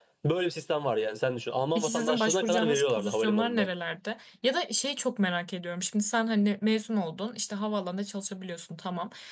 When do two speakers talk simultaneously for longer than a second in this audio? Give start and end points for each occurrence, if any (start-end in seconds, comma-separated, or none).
1.8-3.7